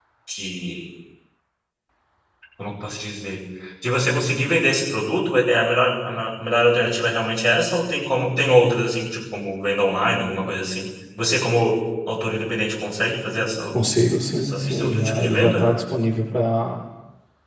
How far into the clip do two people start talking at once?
14.4 s

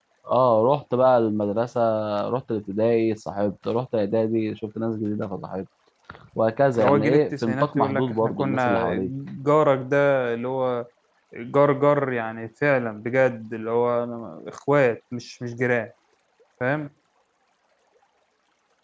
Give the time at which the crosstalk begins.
6.8 s

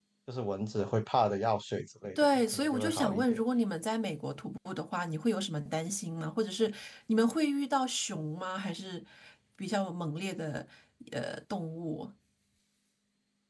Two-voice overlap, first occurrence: 2.1 s

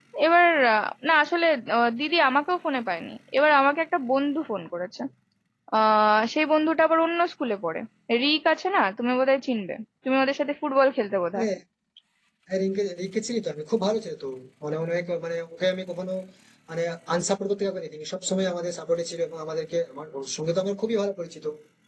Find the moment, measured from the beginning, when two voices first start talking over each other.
none

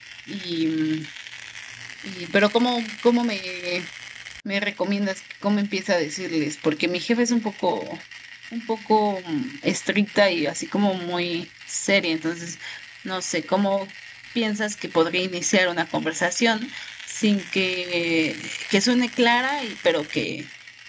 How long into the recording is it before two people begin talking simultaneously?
none

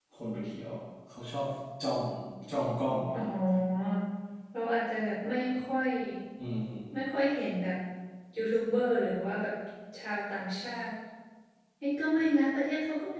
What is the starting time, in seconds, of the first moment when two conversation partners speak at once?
none

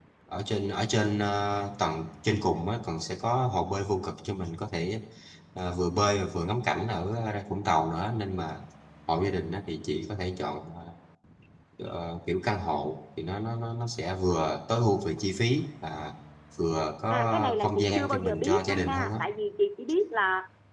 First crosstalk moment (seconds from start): 17.1 s

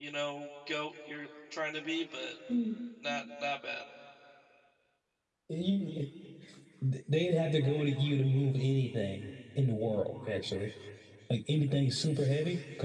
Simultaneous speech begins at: none

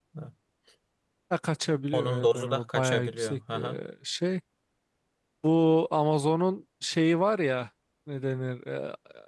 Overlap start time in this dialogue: 1.9 s

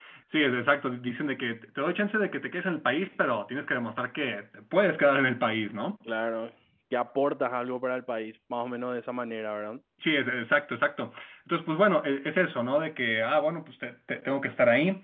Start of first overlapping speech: none

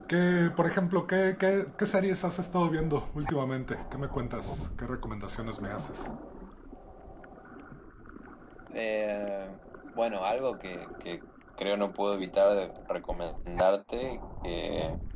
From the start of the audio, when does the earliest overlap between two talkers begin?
none

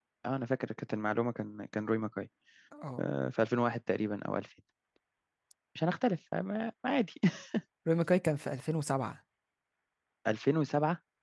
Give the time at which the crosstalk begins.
none

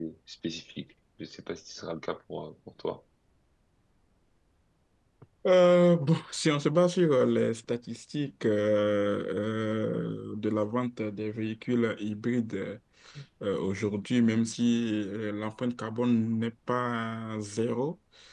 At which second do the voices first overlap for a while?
none

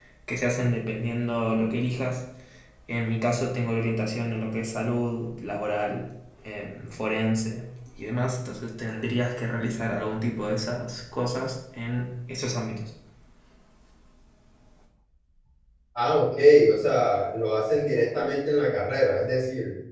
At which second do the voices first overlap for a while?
none

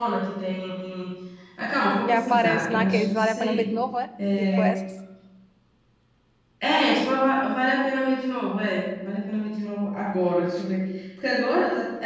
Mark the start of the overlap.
2.1 s

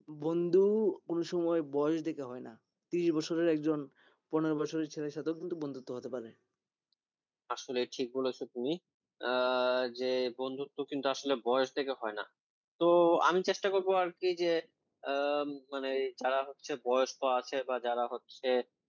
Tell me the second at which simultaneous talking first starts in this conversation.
none

